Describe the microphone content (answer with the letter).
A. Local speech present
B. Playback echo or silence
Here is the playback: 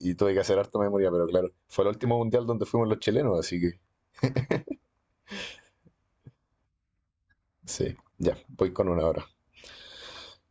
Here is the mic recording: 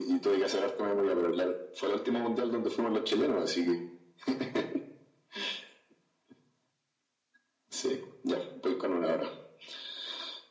B